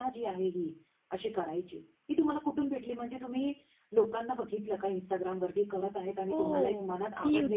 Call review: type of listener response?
taking over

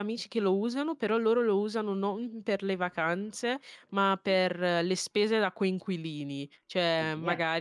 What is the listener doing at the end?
listening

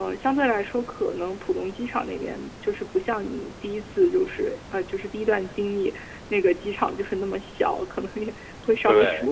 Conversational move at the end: listening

